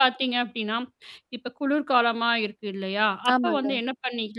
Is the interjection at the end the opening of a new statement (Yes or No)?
No